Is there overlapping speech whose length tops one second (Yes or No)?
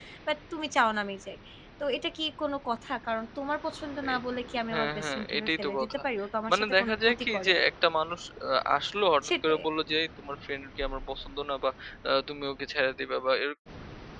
Yes